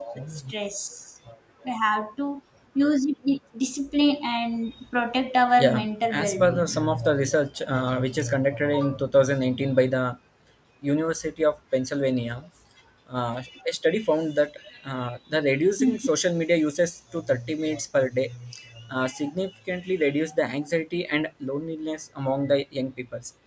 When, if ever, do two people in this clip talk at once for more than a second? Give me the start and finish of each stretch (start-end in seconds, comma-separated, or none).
5.6-6.8